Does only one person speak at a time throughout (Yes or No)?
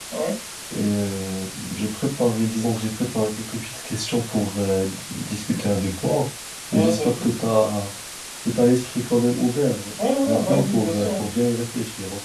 No